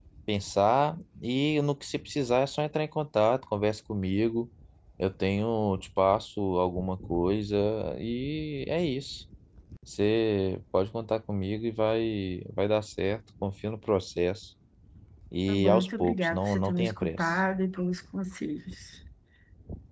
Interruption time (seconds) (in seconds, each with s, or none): 15.5 s